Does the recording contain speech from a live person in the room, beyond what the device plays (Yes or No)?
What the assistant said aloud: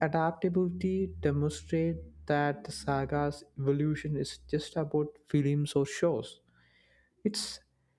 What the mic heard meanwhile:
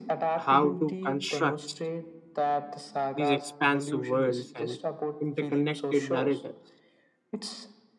Yes